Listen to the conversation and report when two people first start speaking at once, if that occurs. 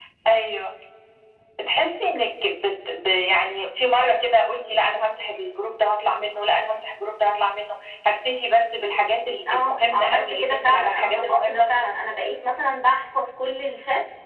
9.5 s

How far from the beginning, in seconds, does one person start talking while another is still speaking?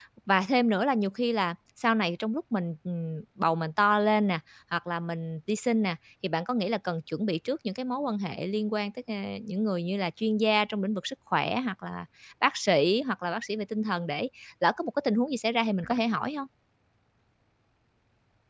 none

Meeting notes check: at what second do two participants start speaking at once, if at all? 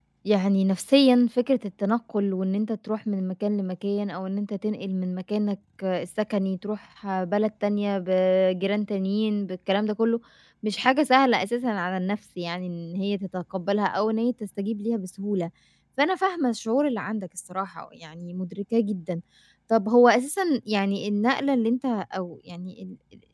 none

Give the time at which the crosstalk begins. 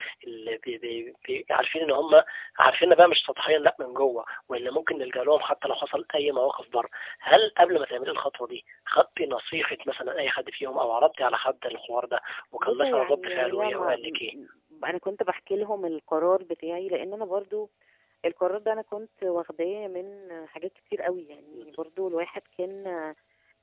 12.6 s

